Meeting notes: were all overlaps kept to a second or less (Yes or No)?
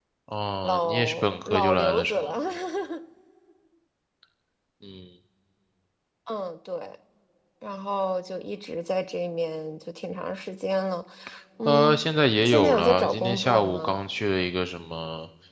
No